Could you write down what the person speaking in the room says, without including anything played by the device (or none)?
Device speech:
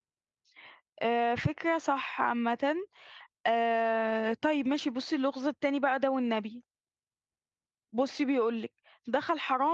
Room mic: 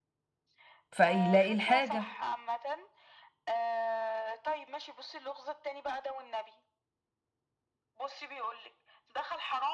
فيلاقي الحاجة